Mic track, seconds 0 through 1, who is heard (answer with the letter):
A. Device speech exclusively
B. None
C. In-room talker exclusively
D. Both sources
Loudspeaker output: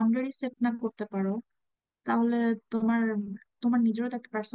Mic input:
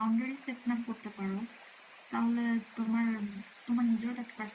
A